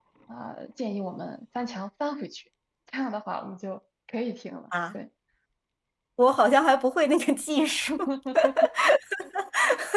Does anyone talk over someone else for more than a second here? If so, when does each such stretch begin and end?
none

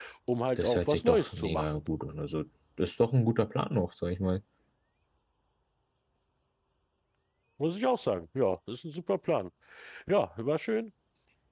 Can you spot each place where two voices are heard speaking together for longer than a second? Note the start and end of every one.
0.6-1.8

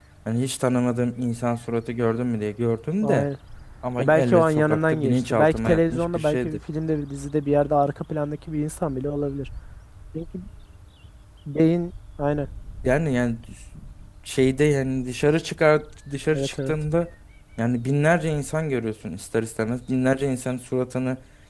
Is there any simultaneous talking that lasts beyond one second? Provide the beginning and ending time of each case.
4.0-6.6

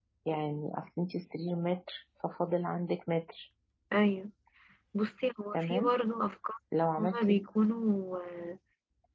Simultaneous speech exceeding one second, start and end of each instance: none

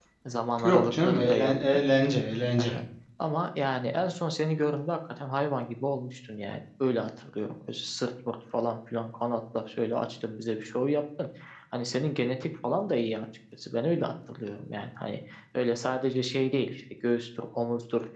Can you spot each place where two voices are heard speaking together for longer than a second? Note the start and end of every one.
0.6-1.8

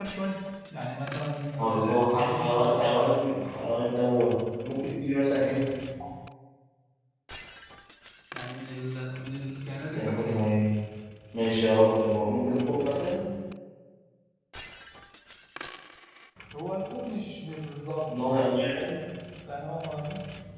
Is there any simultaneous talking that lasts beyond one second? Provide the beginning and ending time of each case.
1.6-3.3

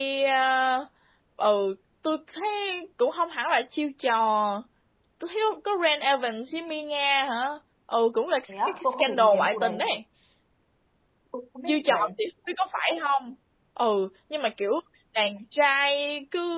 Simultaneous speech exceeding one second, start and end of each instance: 8.5-9.7

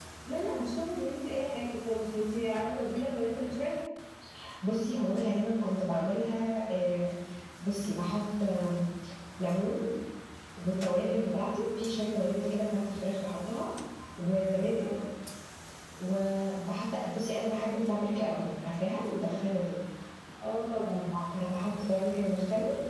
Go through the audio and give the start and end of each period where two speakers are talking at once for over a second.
none

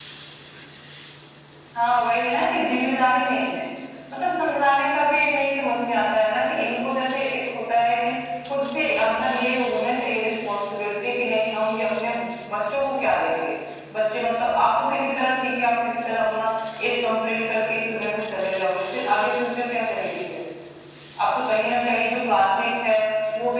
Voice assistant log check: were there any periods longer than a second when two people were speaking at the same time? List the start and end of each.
none

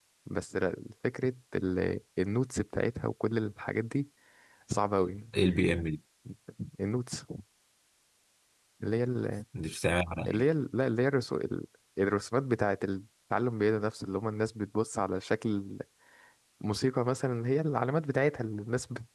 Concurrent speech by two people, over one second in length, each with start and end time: none

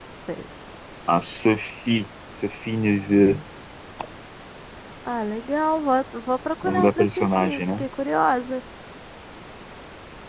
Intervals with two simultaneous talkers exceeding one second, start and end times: 6.6-7.8

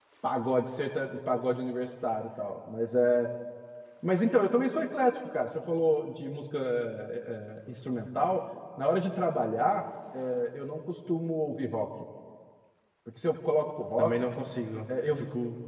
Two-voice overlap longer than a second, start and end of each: none

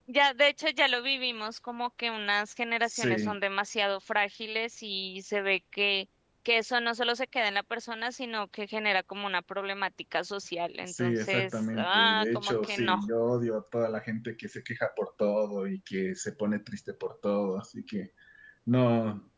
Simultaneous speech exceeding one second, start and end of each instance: 10.8-13.0

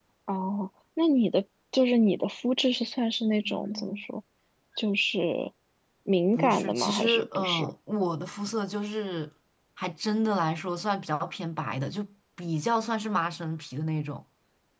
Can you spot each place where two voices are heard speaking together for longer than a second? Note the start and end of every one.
6.4-7.7

